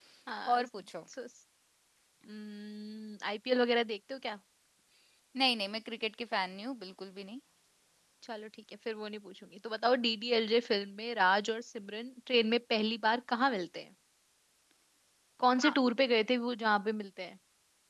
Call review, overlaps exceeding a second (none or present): none